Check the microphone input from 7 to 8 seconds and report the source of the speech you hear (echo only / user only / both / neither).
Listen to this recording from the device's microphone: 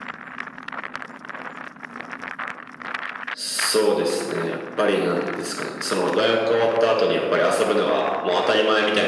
echo only